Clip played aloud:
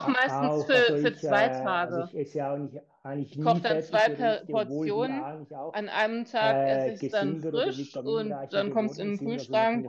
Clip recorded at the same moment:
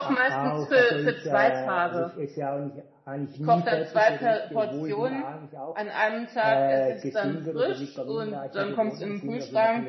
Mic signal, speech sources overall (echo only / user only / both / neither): echo only